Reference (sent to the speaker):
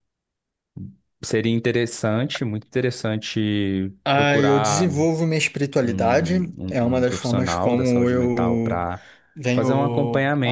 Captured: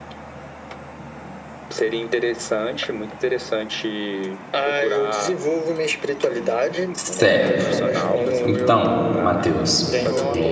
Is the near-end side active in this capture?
Yes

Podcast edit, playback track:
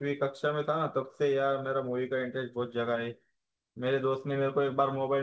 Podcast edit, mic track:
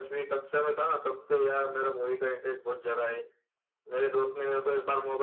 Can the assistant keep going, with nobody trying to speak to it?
Yes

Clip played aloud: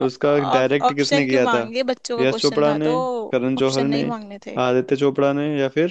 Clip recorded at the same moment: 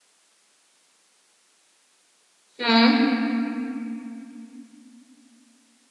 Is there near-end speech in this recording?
Yes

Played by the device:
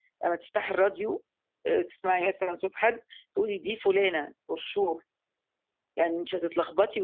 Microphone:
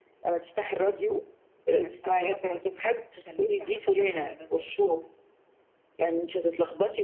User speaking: Yes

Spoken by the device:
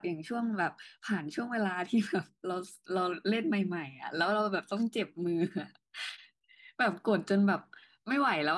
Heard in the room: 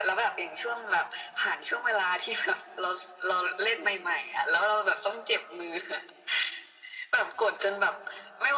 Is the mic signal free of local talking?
Yes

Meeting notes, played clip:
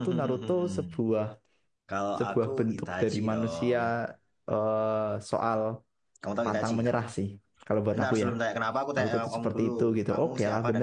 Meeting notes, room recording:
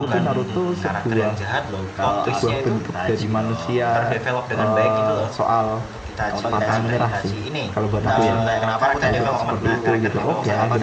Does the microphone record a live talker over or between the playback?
Yes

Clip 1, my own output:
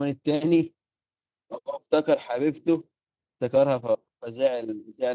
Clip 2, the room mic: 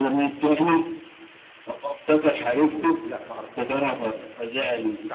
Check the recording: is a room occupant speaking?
Yes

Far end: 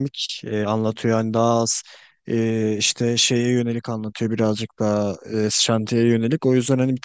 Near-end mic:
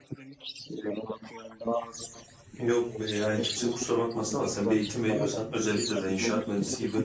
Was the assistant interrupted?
Yes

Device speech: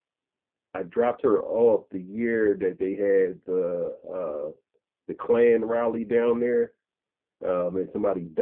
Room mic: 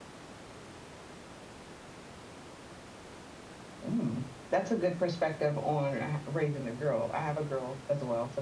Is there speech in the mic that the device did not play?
Yes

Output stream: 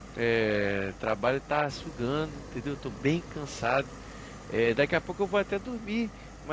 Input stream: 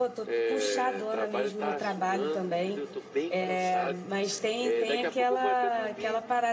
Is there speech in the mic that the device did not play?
Yes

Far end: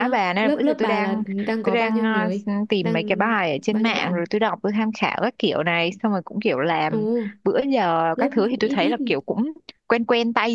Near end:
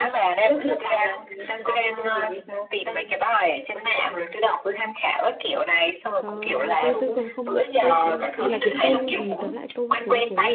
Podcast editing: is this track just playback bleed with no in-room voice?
No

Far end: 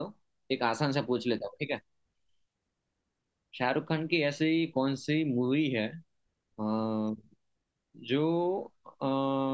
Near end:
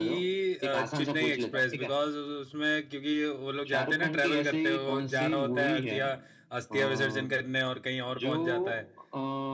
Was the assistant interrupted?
Yes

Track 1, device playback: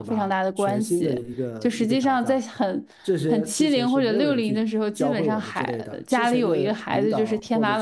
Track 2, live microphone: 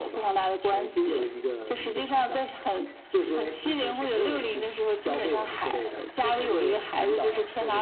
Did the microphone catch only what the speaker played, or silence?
Yes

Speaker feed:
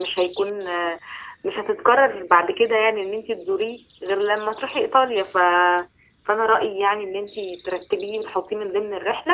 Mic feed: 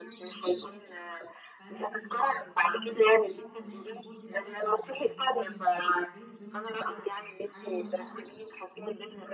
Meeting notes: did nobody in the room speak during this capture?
No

